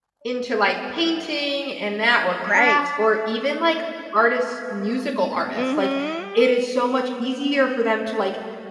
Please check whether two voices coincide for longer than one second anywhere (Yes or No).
No